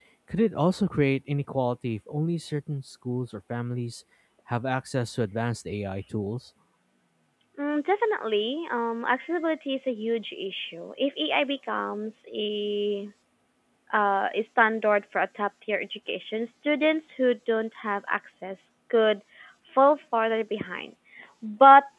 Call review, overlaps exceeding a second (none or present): none